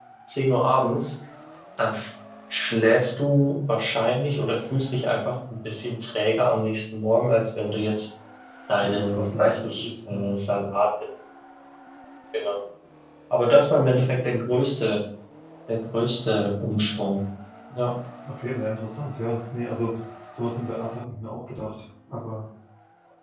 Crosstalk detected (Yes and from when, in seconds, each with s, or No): Yes, from 8.8 s